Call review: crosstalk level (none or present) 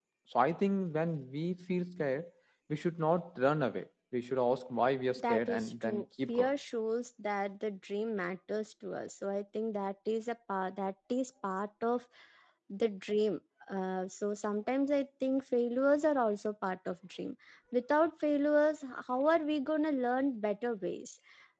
present